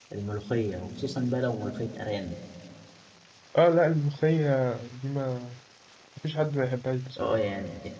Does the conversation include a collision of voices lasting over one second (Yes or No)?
No